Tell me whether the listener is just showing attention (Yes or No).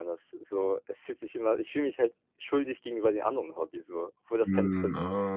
No